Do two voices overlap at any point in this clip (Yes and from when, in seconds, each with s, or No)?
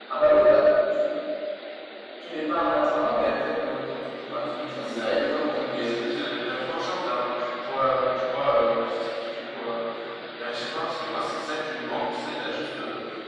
Yes, from 4.6 s